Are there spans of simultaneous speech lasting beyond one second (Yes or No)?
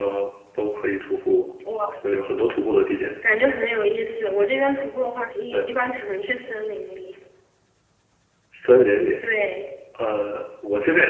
No